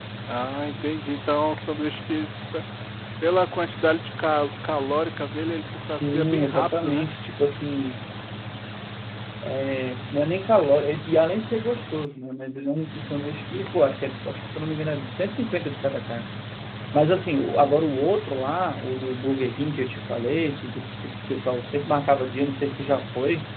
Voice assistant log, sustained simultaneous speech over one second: present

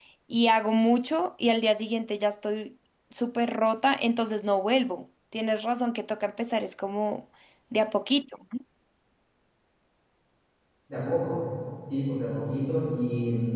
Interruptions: none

